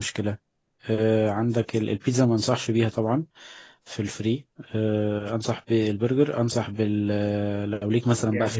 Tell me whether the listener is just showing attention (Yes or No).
No